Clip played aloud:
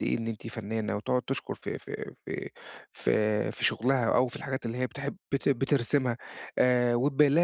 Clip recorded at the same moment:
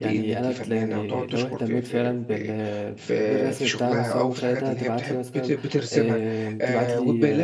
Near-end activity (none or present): present